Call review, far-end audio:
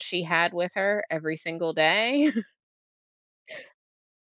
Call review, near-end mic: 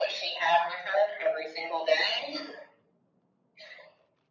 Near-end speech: none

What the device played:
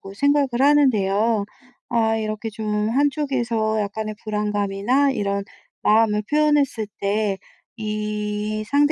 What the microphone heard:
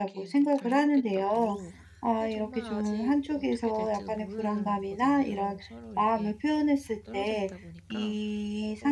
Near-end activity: present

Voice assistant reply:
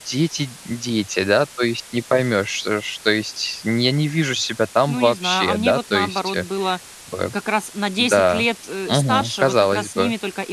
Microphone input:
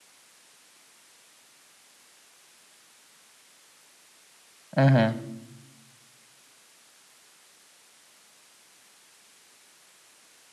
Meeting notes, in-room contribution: present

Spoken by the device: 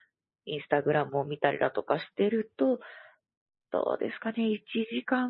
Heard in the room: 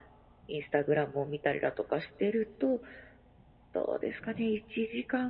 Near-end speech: none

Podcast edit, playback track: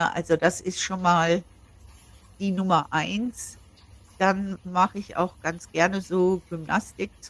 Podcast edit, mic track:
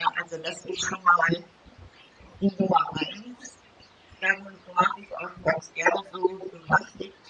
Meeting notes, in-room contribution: none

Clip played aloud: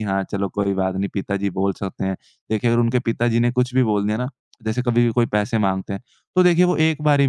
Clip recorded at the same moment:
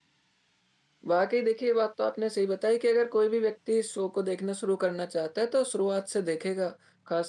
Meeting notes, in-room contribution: present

